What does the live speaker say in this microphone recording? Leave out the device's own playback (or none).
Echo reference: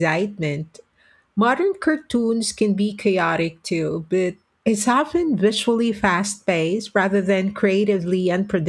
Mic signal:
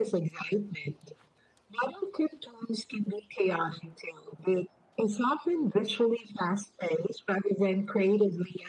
none